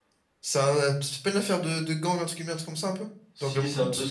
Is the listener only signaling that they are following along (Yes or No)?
No